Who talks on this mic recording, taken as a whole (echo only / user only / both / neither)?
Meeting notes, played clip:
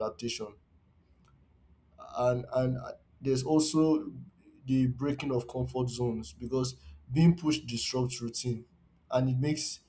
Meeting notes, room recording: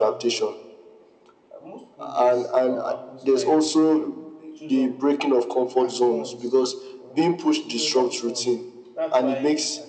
both